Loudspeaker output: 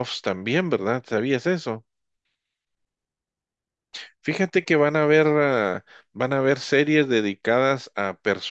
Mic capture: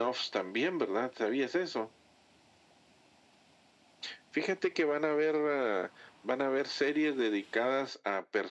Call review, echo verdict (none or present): present